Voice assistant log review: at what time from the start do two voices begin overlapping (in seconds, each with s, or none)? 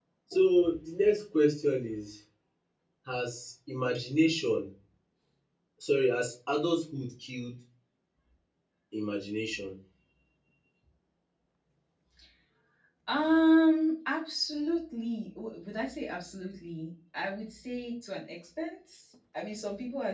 none